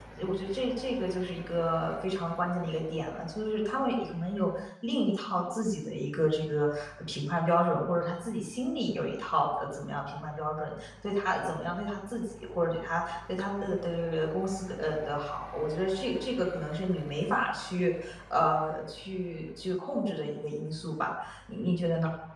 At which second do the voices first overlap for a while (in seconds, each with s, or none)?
none